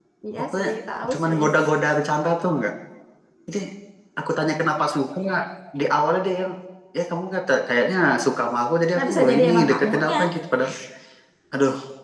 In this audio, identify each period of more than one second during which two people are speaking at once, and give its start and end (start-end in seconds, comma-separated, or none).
8.9-10.3